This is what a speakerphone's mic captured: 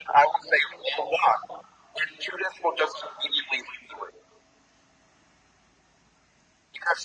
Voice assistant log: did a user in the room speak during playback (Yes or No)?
No